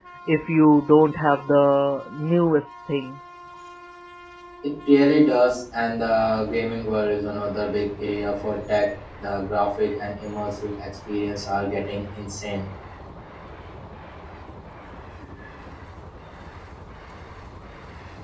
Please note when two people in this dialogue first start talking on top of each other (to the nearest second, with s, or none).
none